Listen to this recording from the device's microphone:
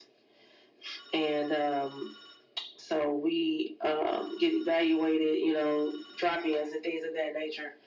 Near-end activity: none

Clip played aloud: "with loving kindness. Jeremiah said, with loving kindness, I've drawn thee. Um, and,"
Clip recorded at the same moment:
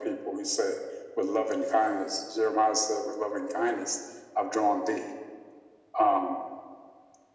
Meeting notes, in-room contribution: none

